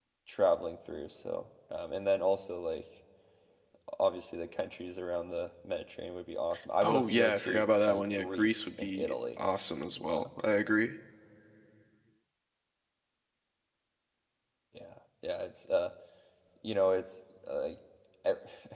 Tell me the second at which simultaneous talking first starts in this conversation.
7 s

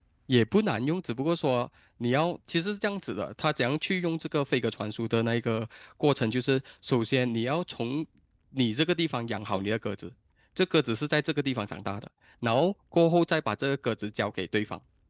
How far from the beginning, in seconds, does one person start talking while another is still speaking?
none

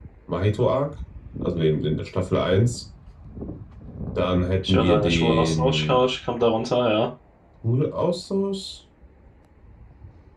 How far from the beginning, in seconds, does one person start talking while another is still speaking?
5 s

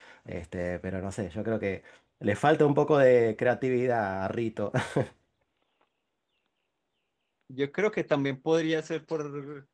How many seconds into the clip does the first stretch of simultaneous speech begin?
none

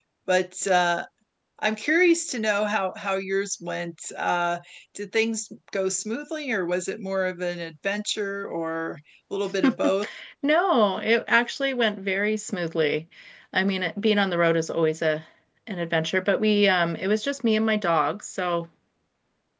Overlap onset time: none

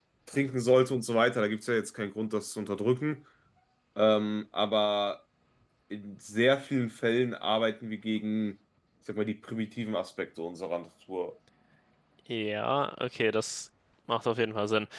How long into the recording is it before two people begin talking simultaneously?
none

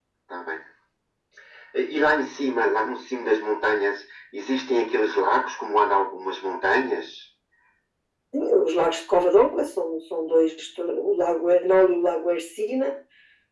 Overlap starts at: none

